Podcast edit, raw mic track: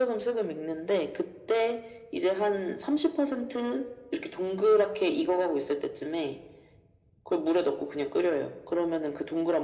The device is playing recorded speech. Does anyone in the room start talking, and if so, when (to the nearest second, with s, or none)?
none